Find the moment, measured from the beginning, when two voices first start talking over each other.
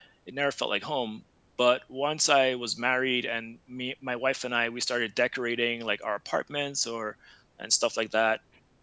none

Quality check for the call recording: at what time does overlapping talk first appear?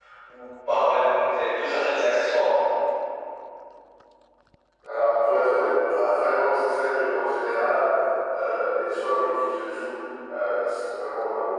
none

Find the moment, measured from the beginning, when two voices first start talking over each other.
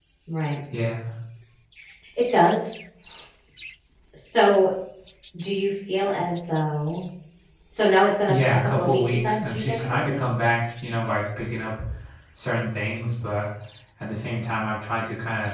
8.3 s

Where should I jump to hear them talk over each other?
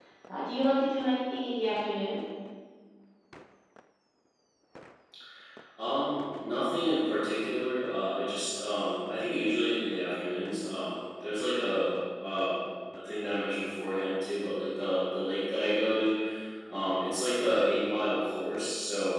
none

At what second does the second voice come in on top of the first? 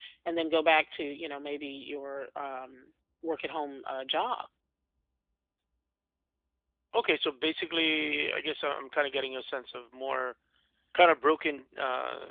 none

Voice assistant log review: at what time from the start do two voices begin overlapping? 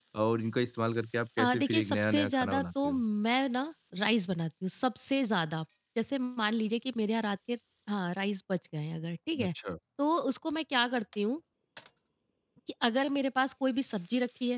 1.4 s

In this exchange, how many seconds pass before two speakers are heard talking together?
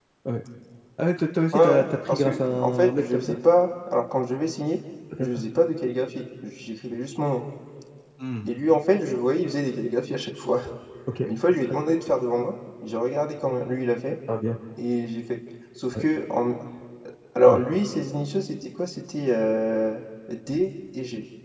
1.5 s

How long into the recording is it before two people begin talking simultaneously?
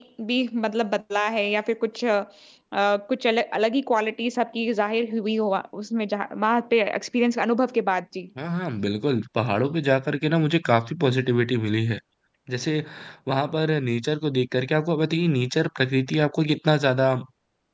none

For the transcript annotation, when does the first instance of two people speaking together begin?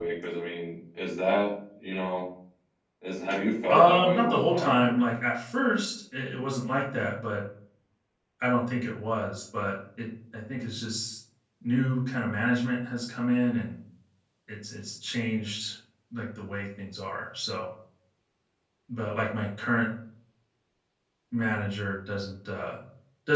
3.7 s

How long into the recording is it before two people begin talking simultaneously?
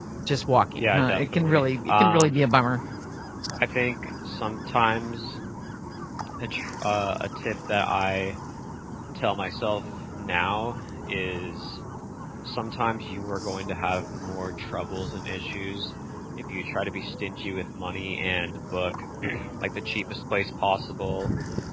0.7 s

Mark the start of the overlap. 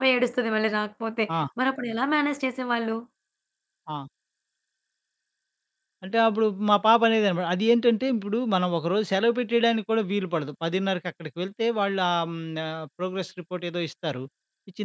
none

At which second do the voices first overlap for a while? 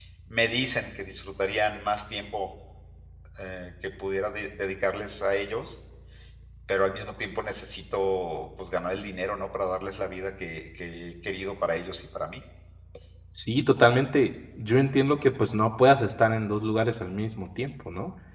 none

